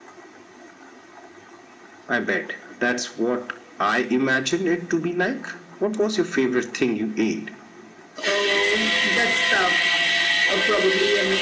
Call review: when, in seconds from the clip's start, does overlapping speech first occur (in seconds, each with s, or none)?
none